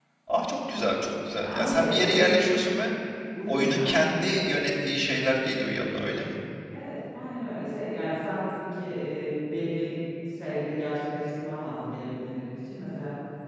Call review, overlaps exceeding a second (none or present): present